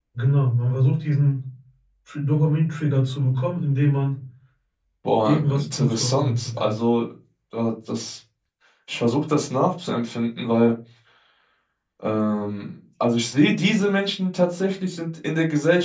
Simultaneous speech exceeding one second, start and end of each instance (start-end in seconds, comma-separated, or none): 5.2-6.8